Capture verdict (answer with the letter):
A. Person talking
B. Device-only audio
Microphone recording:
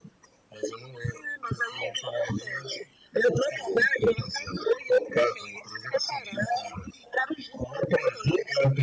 B